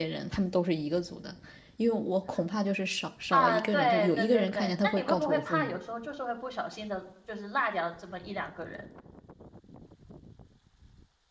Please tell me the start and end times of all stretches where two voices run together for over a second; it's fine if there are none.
3.3-5.7

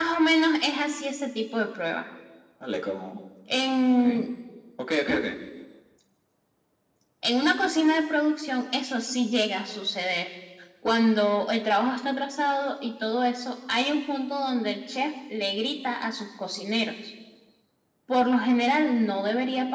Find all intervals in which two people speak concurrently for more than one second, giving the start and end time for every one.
none

